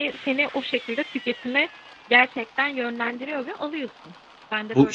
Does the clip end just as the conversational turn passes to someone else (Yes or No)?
Yes